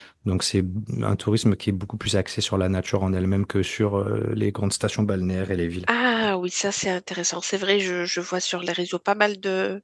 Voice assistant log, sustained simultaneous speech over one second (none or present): none